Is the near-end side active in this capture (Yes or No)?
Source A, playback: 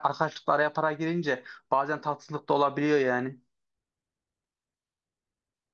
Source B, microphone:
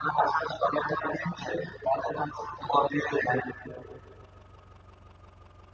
No